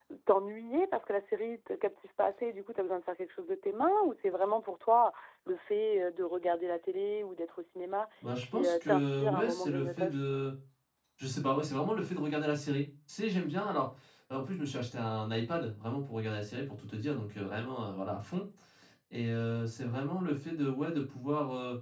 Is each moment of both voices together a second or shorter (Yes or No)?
No